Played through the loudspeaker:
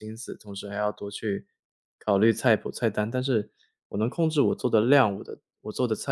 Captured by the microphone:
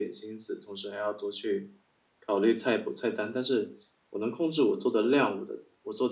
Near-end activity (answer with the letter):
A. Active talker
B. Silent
B